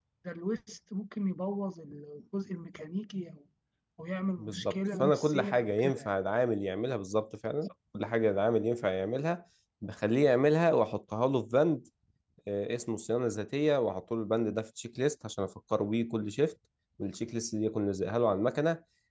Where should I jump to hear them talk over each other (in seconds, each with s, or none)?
4.4 s